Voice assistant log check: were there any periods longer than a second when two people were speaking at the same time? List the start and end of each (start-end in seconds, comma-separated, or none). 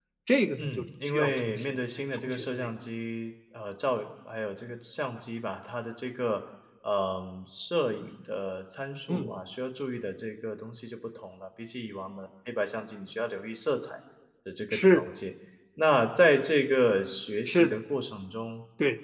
0.6-2.7